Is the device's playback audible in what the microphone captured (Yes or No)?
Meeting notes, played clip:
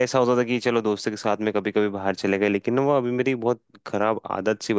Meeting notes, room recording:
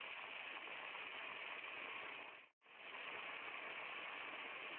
No